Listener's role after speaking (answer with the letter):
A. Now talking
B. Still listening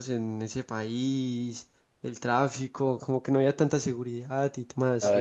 A